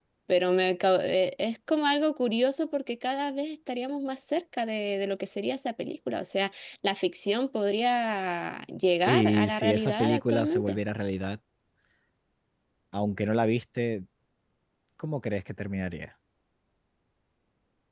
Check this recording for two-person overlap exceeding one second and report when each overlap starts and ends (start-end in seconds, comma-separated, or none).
9.1-10.8